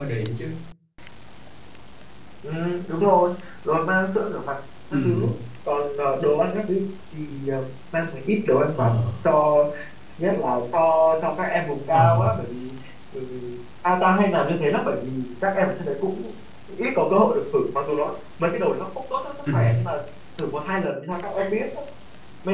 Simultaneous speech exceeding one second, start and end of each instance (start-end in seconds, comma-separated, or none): none